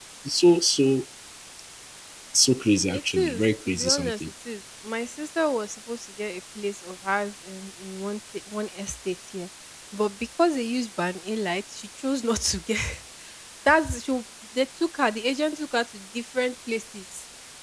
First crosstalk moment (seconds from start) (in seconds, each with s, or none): 2.9 s